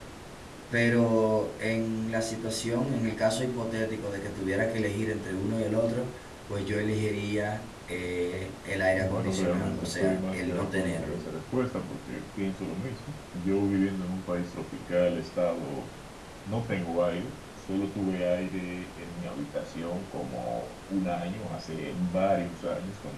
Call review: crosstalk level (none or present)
present